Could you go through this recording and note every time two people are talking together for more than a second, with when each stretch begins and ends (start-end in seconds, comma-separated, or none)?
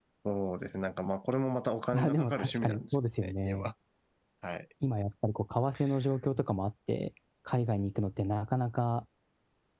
1.9-3.7